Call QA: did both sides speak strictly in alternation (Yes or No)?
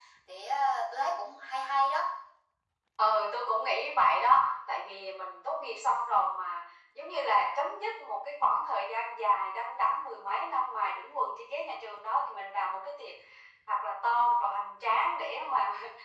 Yes